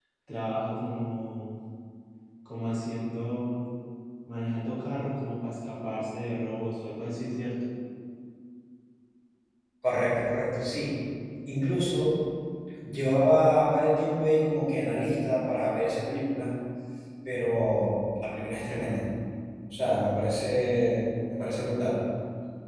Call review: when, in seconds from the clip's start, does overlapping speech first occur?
none

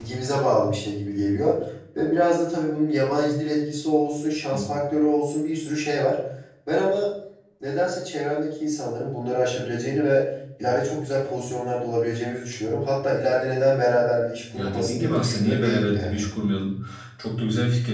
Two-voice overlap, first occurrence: 14.5 s

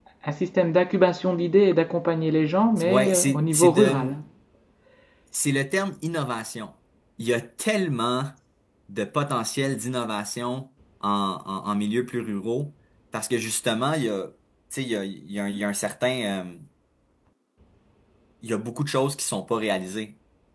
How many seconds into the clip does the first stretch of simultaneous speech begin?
2.8 s

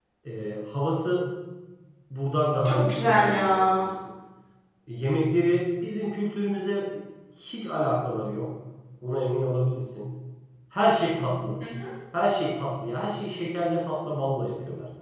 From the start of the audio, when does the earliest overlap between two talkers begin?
2.6 s

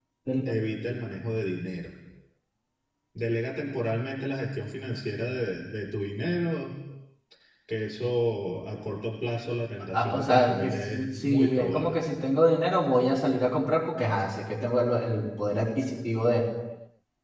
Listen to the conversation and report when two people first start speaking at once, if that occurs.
9.9 s

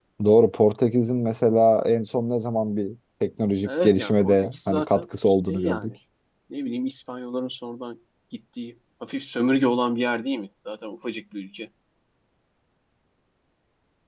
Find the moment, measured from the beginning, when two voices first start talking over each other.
3.6 s

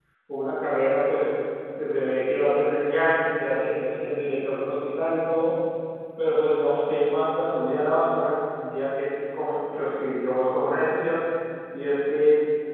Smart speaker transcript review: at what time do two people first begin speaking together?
none

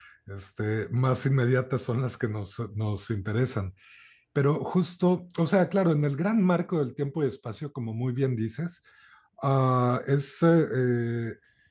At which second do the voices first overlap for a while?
none

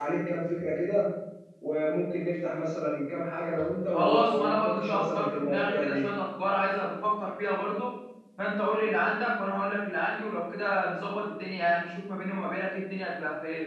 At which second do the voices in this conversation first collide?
3.9 s

